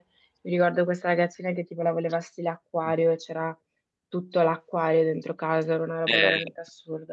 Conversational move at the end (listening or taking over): taking over